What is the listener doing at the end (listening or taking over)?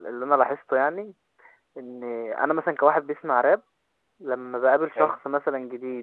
listening